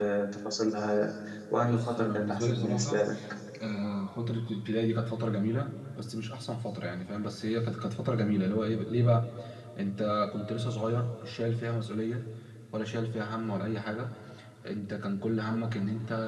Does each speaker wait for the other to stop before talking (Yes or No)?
No